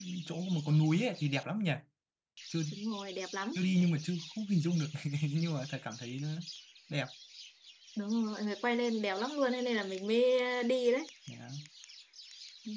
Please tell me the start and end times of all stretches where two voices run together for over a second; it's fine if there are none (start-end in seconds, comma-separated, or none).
none